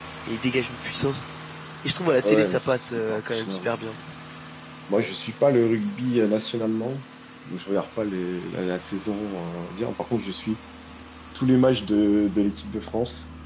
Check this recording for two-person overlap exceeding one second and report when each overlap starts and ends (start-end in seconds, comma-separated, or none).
2.2-3.7